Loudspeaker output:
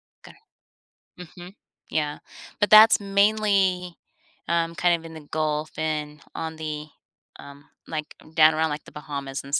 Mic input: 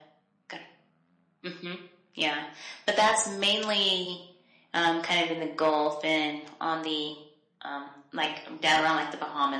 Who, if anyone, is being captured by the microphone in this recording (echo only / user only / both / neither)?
echo only